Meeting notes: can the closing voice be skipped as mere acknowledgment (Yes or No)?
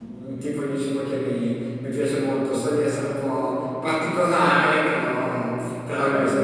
Yes